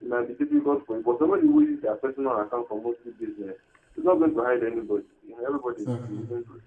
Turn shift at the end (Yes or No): No